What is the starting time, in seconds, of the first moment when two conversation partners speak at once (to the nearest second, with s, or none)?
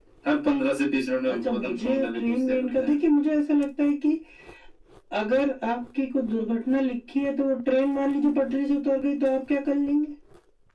1 s